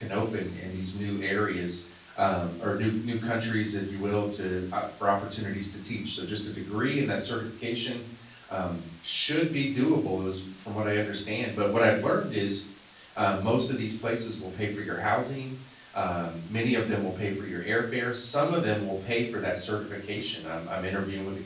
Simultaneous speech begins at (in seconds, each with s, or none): none